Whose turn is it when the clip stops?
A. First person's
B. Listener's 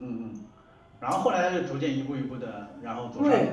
B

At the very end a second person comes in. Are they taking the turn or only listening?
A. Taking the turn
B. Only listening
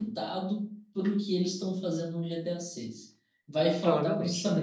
B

